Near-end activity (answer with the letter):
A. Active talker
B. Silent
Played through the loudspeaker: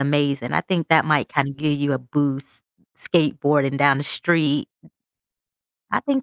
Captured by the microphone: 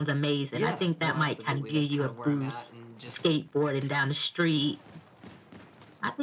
A